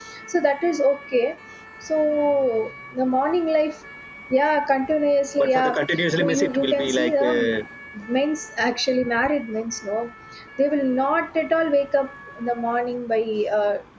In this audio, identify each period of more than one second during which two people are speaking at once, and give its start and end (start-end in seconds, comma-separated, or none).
6.2-7.5